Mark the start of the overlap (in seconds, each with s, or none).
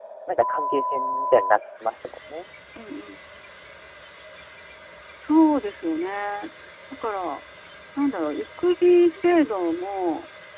none